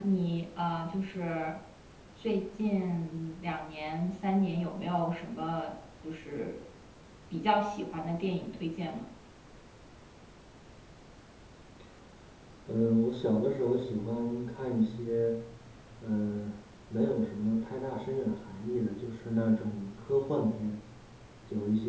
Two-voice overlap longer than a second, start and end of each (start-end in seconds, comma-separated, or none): none